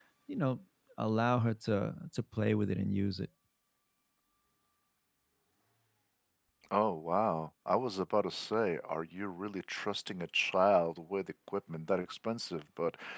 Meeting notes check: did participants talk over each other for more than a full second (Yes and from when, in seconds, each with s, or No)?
No